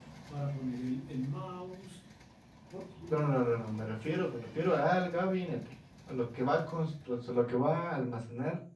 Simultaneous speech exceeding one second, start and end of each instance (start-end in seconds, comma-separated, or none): none